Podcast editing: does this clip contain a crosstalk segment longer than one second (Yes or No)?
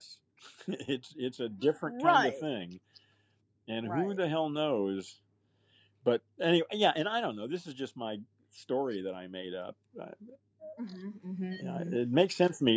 No